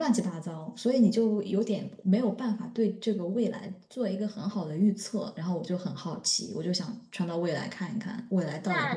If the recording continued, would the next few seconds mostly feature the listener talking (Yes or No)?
Yes